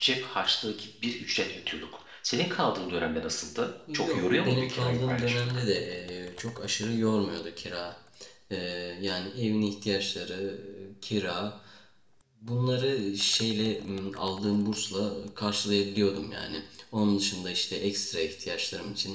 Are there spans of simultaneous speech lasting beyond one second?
Yes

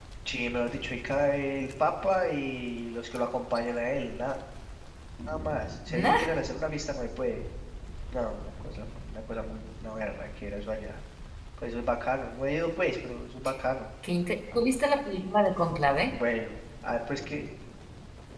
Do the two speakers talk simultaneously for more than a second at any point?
No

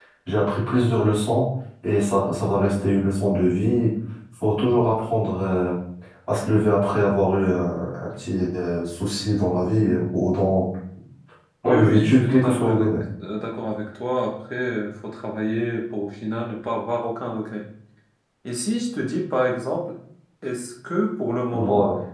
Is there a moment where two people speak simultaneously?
Yes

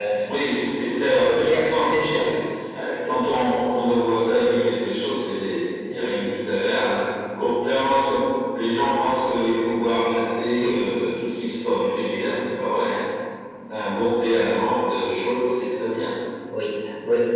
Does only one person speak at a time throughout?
No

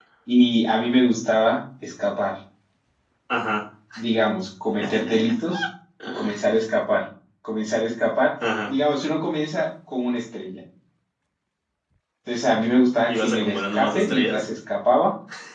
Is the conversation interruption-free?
No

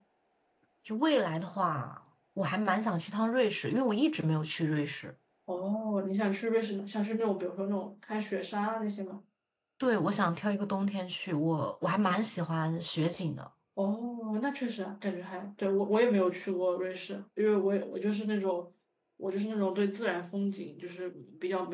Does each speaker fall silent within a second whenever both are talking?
Yes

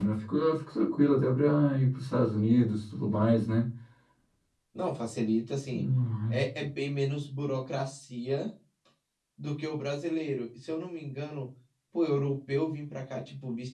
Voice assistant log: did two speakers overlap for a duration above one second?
No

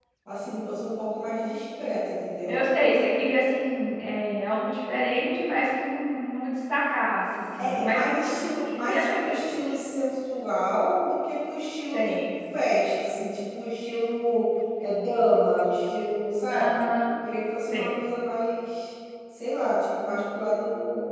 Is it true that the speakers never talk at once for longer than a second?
No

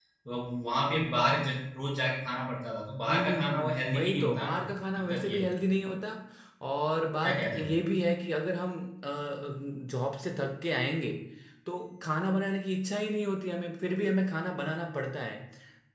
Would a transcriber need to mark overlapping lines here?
Yes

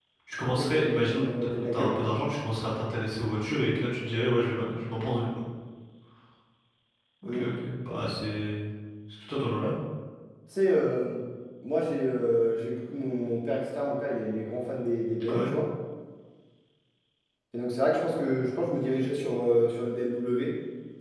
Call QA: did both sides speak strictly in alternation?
No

